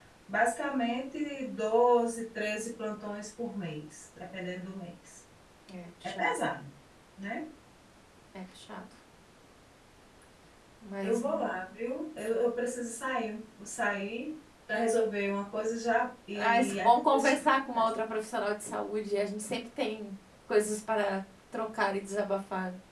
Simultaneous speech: Yes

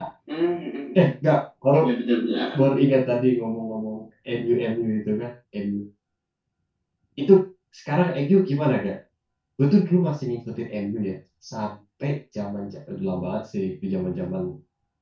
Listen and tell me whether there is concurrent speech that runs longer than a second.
No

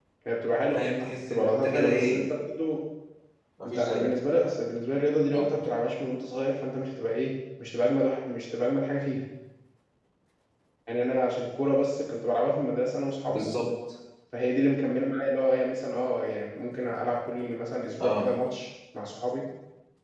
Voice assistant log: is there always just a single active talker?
No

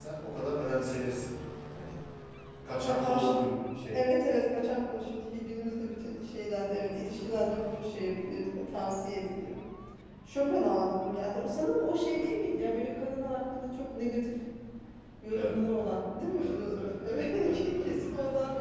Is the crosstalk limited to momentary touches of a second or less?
No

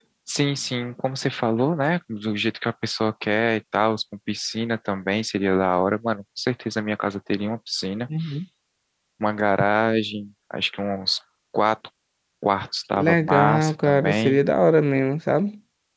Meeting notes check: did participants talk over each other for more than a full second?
Yes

